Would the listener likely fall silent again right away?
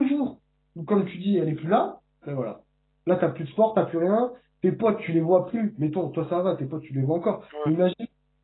Yes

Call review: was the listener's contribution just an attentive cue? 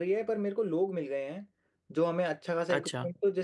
Yes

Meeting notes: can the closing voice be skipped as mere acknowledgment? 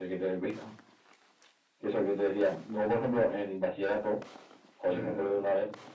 Yes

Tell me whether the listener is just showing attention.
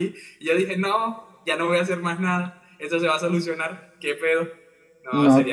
No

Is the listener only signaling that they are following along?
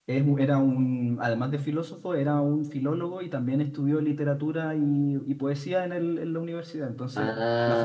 Yes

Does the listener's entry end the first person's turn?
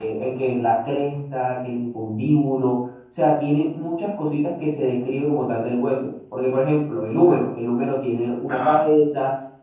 No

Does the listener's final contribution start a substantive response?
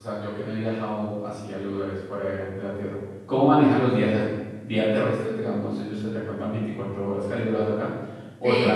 Yes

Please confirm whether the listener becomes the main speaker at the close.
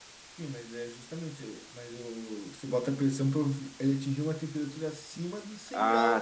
Yes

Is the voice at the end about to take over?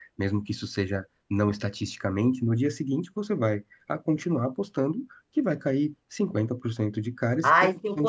Yes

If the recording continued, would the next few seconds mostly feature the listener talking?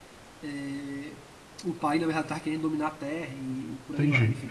Yes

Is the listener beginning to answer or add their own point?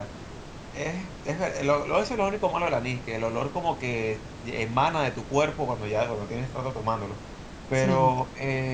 No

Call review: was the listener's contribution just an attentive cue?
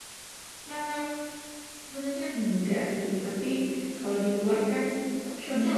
Yes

